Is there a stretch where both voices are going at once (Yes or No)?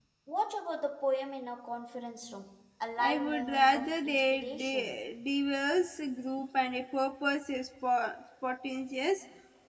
Yes